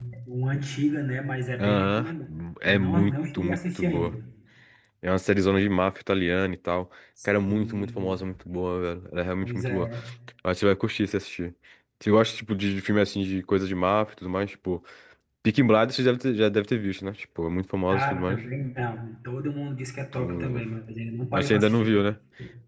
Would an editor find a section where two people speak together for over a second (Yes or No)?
Yes